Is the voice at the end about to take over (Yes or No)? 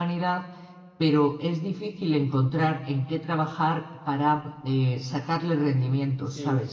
Yes